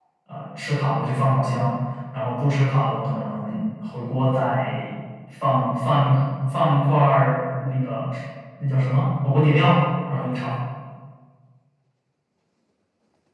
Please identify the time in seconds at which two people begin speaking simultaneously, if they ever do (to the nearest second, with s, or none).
none